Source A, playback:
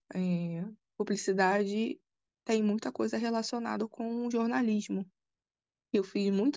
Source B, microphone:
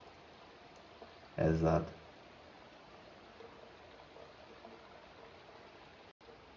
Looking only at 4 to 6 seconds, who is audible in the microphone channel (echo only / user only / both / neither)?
neither